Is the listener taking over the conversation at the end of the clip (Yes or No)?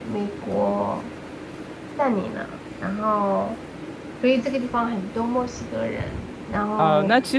Yes